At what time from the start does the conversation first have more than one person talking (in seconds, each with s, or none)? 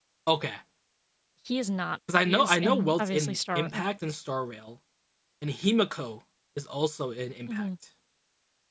2.3 s